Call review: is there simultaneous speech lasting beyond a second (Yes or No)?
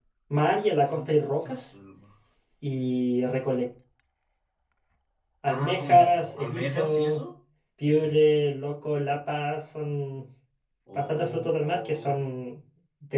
Yes